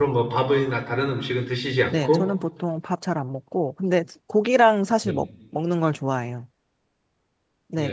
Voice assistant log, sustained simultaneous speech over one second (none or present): none